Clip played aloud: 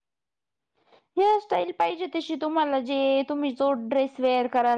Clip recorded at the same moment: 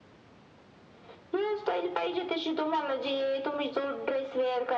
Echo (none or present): present